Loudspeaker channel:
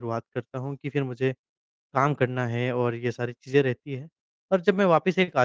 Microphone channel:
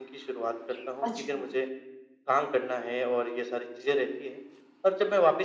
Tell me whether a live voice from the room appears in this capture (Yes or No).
Yes